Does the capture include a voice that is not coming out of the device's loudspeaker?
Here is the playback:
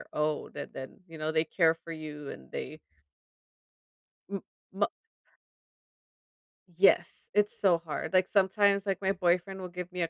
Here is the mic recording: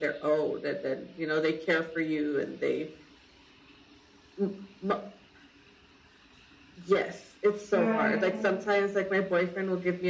Yes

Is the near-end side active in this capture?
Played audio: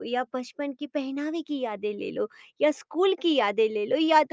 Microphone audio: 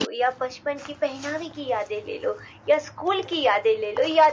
No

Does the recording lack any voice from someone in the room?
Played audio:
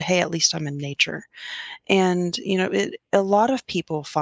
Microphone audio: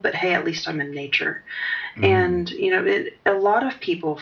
No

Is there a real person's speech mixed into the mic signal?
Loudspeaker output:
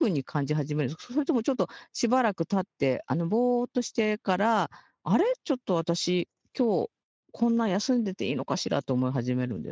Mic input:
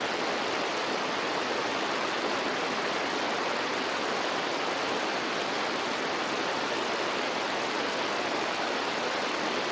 No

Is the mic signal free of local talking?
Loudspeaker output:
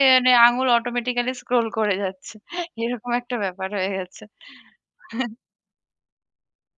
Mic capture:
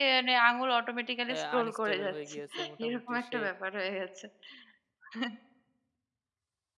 No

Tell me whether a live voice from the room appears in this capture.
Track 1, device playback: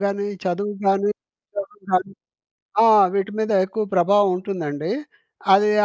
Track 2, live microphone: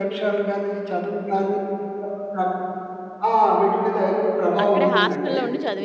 Yes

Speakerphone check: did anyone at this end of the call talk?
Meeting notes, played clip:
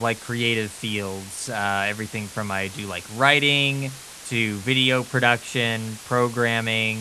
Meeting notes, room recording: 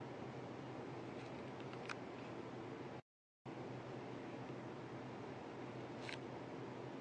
No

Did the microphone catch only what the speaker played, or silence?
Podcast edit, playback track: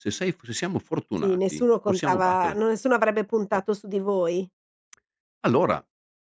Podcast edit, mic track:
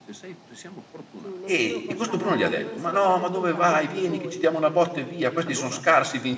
No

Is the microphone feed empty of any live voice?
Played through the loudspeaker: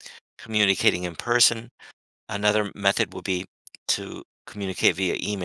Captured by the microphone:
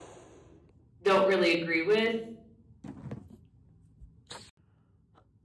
No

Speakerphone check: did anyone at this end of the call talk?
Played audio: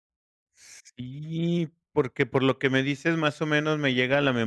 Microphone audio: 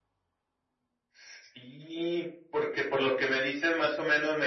No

